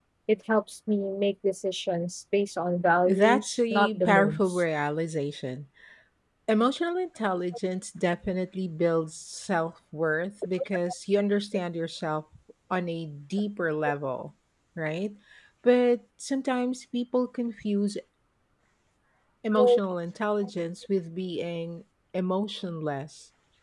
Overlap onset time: 3.0 s

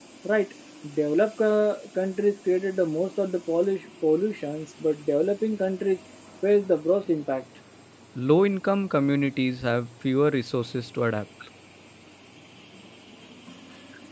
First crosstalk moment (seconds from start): none

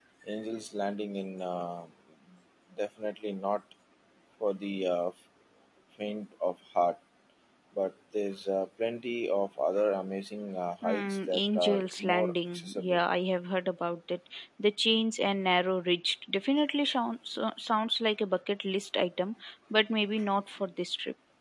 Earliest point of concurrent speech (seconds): 10.8 s

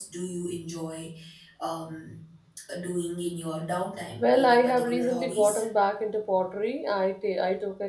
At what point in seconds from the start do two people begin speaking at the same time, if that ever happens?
4.2 s

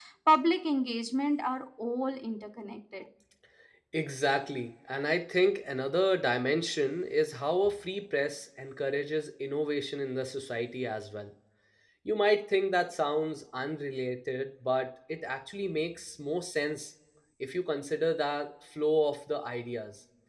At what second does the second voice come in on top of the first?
none

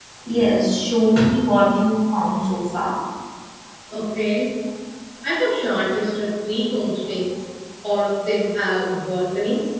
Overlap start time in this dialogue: none

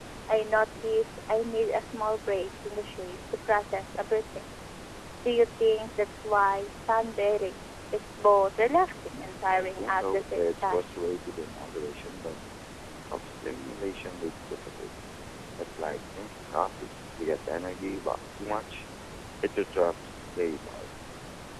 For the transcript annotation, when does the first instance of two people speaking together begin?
9.5 s

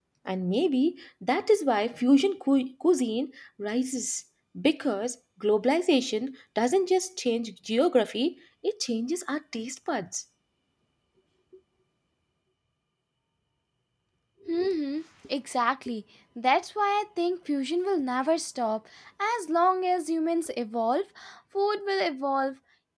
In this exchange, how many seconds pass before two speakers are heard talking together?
none

